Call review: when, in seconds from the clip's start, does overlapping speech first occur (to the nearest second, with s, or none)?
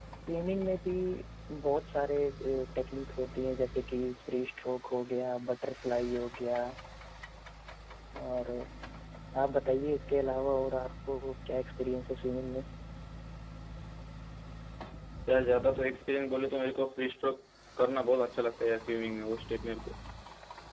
none